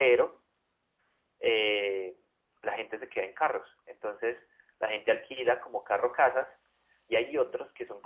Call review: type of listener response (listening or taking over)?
listening